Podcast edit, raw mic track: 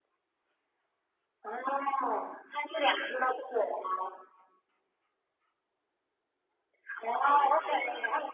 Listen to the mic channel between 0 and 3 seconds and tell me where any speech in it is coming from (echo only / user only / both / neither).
echo only